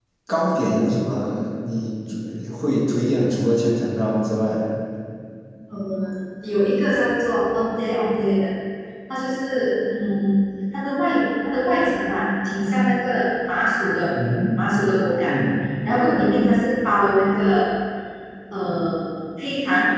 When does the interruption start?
none

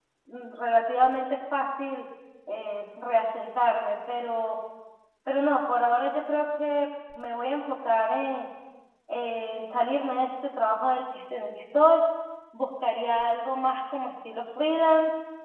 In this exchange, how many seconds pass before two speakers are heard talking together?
none

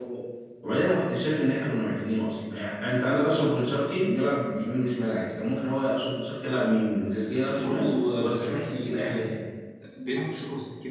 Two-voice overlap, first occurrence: 7 s

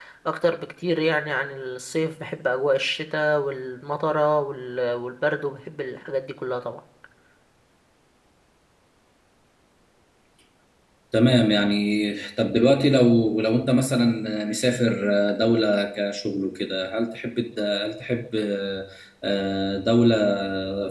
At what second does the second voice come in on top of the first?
none

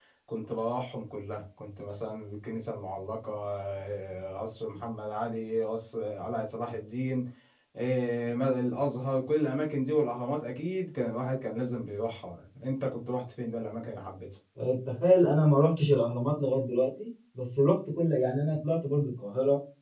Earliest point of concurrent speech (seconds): none

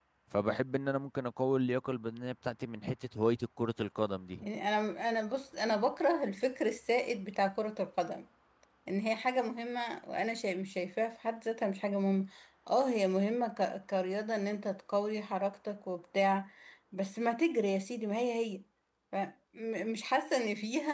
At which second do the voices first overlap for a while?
none

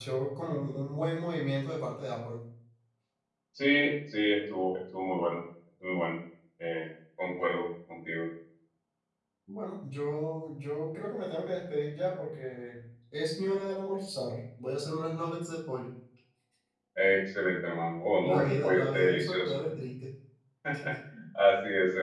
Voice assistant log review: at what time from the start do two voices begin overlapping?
18 s

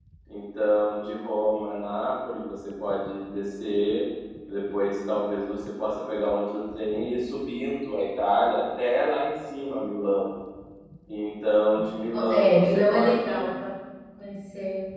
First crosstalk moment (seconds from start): 12 s

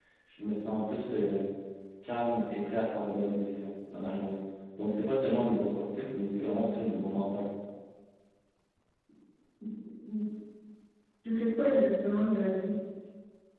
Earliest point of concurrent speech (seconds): none

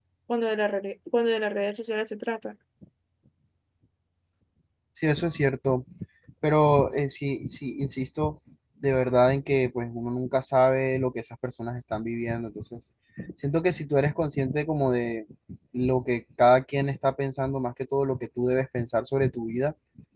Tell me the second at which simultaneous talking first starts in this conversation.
none

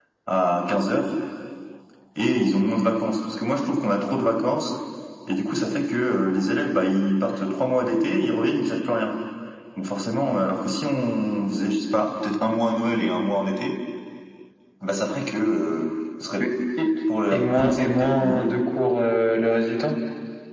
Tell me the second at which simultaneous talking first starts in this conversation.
17 s

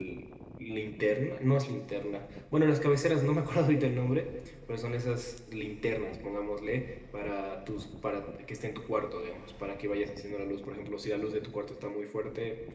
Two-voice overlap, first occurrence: none

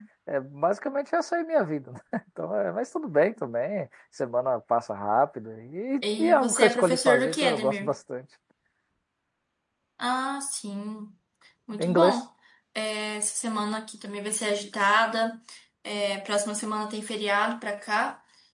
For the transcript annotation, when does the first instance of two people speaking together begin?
6 s

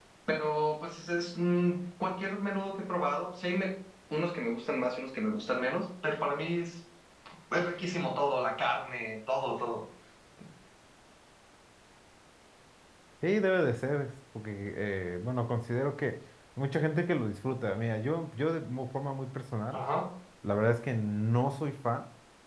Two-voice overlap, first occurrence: none

